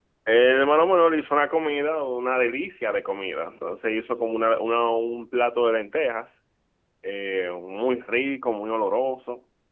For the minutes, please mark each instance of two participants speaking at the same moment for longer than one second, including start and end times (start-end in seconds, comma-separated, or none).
none